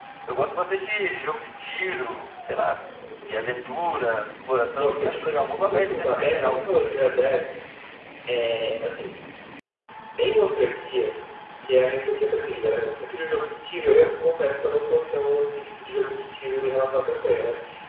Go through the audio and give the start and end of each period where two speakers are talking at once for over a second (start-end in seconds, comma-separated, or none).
4.8-6.7